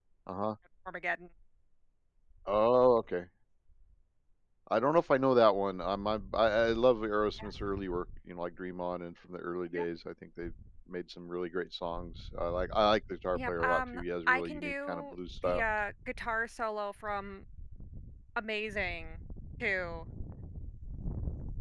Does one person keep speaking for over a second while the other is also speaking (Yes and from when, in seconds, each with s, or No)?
Yes, from 13.3 s